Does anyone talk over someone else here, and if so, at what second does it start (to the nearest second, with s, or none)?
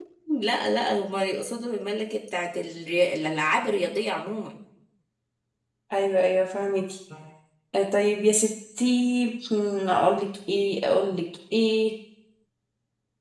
none